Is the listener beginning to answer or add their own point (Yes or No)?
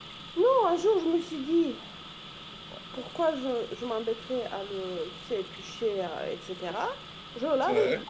No